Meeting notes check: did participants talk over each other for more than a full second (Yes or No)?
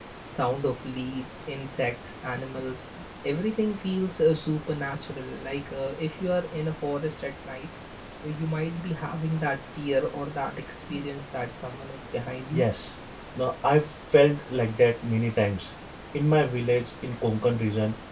No